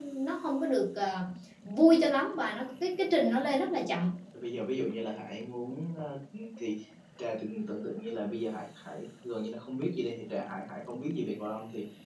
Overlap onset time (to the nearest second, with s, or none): none